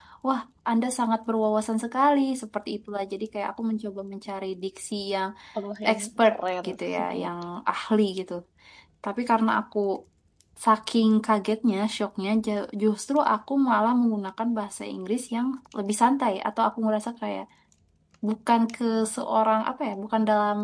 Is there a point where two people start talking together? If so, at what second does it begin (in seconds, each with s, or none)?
5.9 s